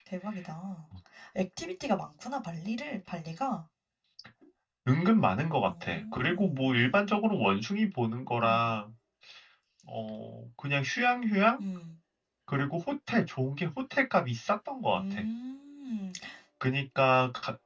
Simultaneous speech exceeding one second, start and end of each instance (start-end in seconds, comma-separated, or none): 5.7-6.9